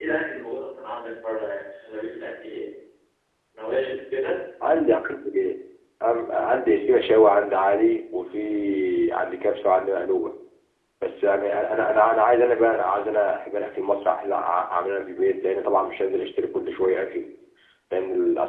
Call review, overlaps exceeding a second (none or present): none